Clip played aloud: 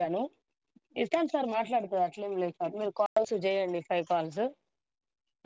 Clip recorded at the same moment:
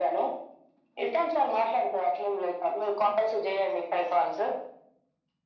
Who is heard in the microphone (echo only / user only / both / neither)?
echo only